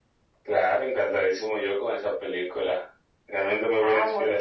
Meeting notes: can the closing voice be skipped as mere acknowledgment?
No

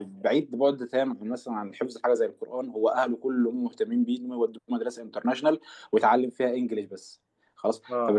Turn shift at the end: No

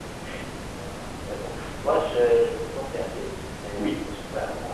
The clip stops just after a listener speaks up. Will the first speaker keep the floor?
Yes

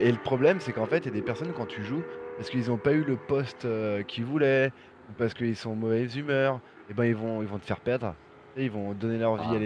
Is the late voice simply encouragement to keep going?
Yes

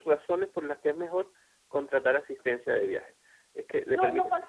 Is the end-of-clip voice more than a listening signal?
Yes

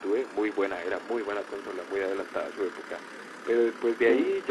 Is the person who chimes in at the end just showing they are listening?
Yes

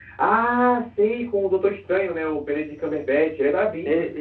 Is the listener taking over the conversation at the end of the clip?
Yes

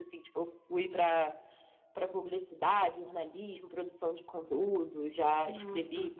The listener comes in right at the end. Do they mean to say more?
No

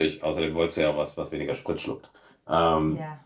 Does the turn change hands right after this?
No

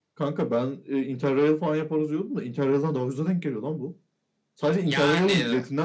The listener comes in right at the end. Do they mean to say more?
No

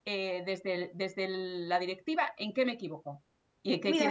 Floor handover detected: Yes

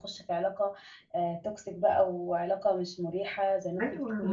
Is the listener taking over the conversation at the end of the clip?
Yes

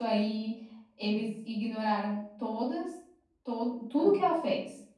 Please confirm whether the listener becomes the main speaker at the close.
No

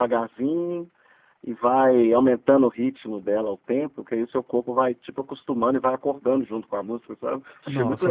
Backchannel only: No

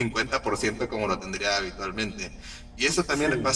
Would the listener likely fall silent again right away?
Yes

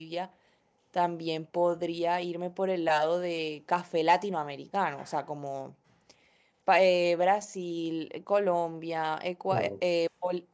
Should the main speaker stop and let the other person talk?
No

